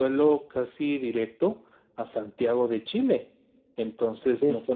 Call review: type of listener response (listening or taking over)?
listening